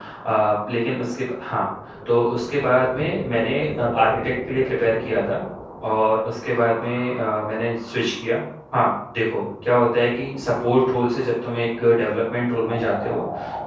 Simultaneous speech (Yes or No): No